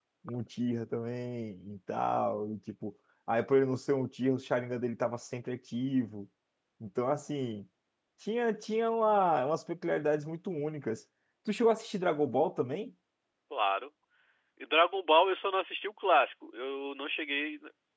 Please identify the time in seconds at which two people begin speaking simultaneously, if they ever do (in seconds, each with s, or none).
none